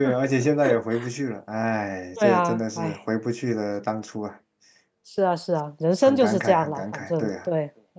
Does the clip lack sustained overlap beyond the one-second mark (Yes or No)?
No